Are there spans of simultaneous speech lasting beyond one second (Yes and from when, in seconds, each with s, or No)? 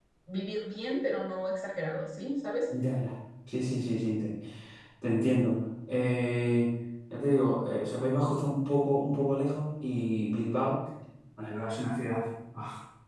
No